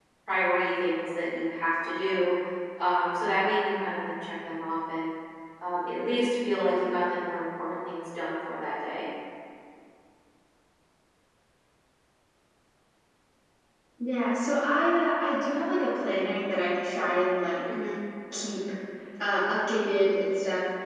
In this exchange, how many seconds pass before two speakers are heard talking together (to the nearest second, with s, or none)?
none